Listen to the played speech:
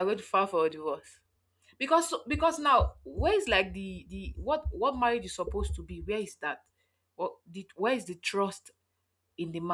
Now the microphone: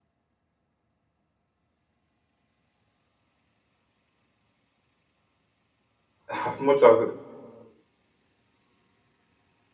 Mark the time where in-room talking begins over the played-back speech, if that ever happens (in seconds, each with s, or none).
6.3 s